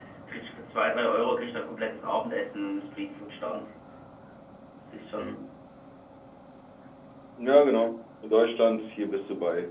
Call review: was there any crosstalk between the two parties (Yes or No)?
No